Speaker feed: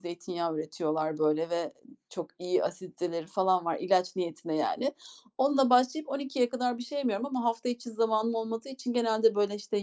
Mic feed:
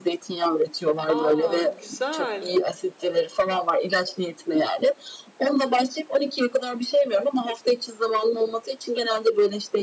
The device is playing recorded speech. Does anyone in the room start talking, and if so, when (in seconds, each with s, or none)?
1.1 s